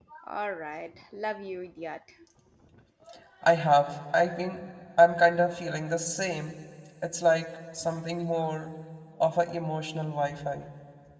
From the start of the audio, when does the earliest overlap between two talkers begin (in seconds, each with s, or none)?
none